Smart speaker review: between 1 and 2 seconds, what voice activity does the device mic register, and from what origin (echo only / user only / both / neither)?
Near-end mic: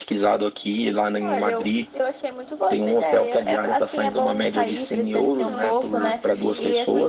echo only